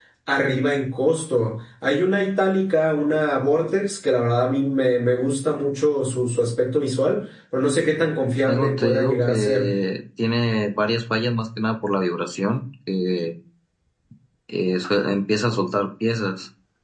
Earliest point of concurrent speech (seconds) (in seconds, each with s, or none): 8.5 s